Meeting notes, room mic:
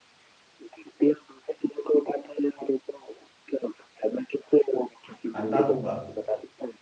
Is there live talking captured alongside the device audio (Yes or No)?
Yes